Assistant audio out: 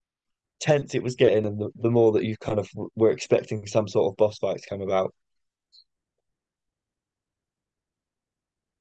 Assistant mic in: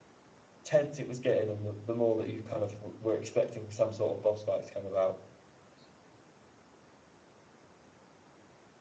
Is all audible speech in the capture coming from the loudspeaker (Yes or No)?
Yes